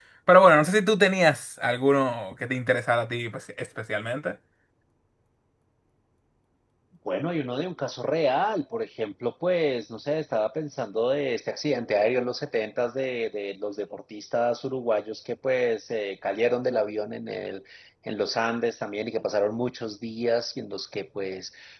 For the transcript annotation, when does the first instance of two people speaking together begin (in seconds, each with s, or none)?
none